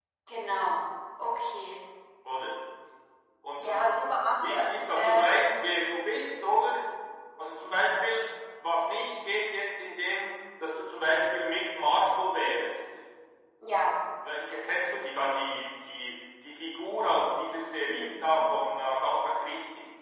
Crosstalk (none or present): present